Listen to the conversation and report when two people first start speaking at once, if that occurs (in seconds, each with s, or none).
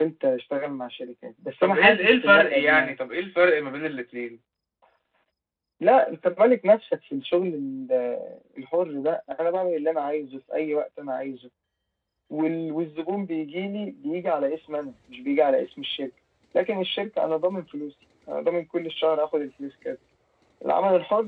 1.6 s